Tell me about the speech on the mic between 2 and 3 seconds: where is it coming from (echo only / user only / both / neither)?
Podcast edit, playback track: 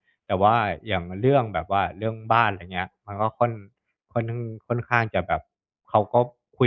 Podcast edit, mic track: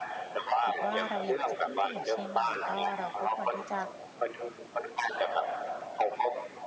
both